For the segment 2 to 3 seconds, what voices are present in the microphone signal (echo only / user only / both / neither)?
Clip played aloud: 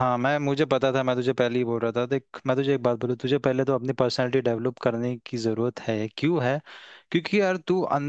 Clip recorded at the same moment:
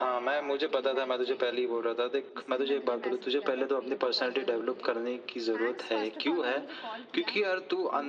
both